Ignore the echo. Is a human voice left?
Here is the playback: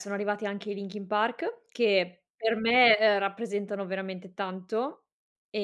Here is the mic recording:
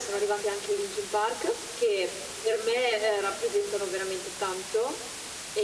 No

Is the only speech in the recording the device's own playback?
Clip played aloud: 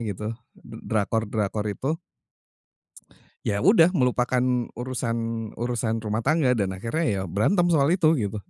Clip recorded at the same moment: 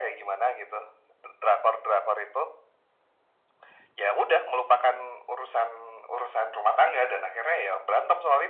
Yes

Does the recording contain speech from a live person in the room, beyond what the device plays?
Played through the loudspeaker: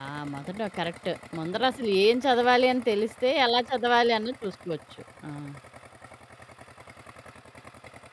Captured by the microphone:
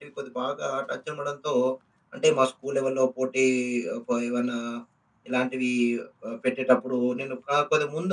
Yes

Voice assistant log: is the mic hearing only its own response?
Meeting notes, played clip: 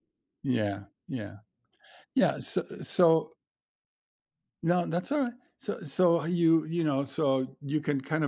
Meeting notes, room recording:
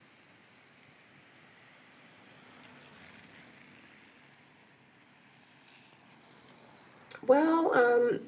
No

